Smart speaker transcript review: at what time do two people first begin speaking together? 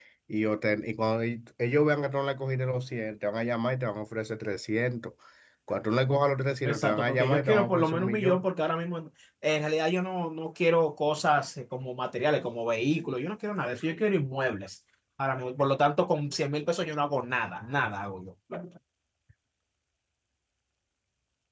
6.6 s

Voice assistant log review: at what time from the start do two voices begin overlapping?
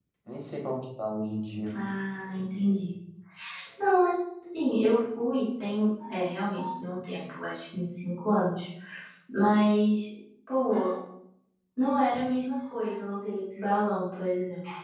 none

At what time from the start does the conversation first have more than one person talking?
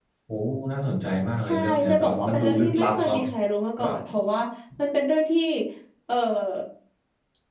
1.5 s

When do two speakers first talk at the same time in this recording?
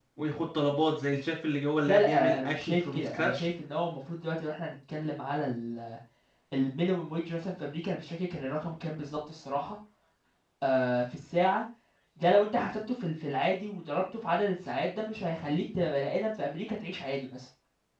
1.9 s

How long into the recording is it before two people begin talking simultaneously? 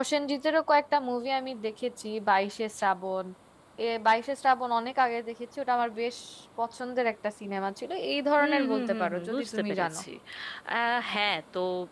8.4 s

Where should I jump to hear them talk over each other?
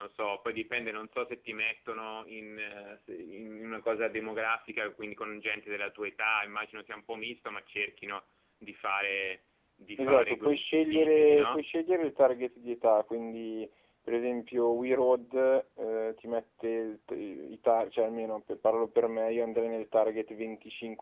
10.0 s

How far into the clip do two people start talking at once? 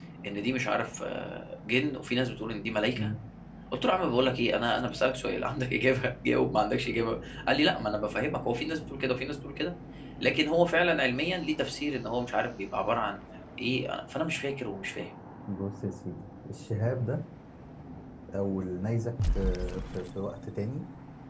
none

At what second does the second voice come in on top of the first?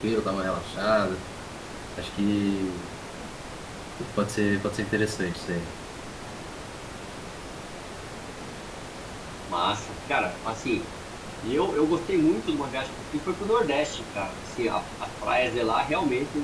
none

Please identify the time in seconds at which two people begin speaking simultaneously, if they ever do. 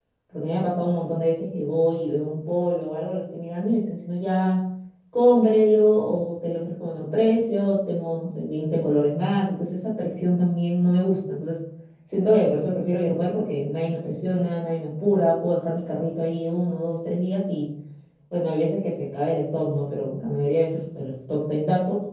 none

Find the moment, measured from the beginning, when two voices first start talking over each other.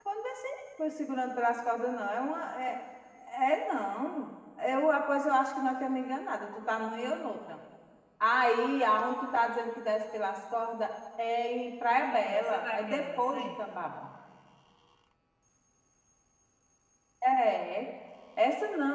12.1 s

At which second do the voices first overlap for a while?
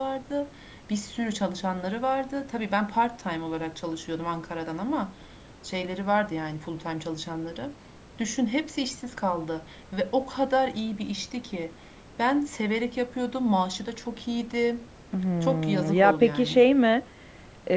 15.4 s

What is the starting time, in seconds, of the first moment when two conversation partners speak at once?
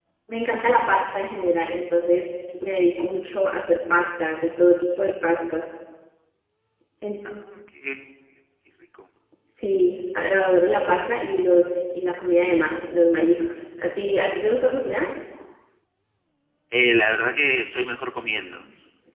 none

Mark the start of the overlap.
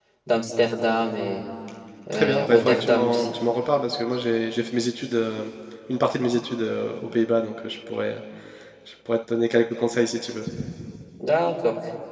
2.1 s

